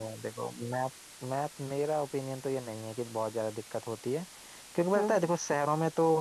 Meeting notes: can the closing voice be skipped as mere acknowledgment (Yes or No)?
Yes